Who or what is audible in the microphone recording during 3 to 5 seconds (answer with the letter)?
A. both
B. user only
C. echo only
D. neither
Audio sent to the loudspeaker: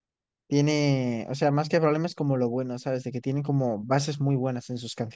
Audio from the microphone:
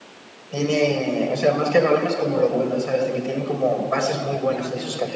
A